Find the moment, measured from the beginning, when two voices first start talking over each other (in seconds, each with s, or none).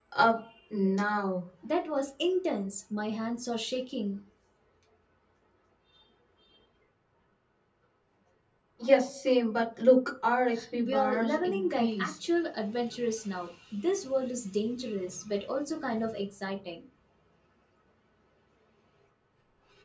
10.8 s